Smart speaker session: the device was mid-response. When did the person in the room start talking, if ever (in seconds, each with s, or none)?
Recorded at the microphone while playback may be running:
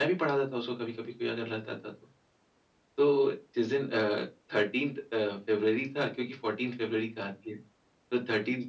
none